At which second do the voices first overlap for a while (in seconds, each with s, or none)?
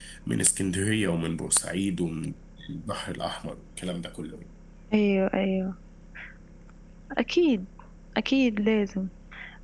none